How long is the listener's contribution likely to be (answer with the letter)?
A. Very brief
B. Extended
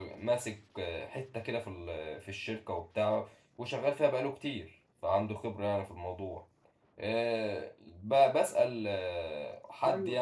A